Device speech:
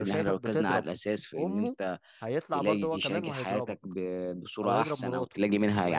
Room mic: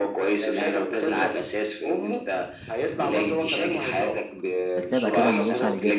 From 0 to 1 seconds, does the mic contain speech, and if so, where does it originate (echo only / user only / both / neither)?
echo only